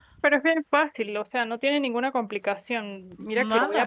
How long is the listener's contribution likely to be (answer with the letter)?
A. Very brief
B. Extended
A